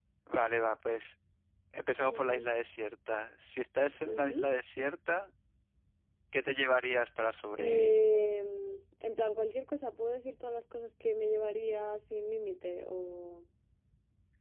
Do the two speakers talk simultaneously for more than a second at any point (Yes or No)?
No